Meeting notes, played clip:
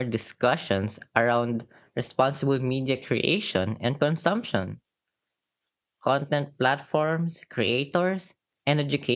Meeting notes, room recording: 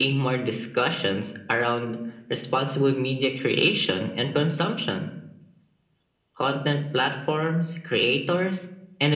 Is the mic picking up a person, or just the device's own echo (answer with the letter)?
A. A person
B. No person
B